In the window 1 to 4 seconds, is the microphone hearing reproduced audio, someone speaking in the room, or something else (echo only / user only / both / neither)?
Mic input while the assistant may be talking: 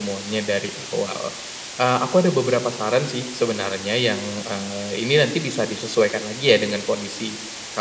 echo only